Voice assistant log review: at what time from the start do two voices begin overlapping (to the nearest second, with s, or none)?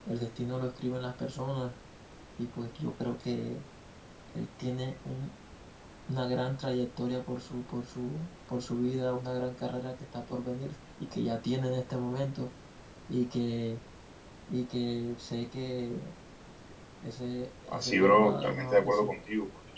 18 s